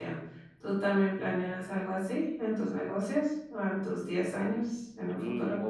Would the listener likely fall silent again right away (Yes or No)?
No